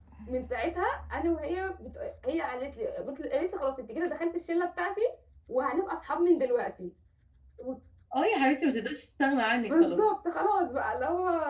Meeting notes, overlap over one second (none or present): none